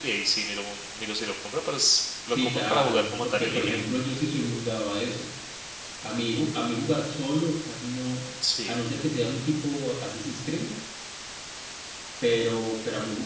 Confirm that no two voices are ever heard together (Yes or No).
No